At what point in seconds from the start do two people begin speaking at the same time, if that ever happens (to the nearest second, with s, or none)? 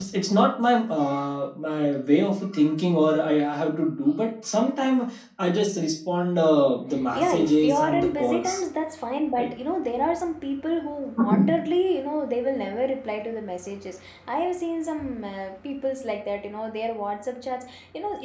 7 s